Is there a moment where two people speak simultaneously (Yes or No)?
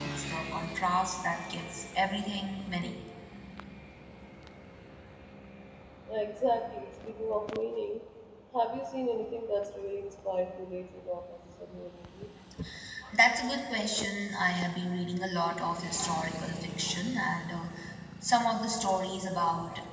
No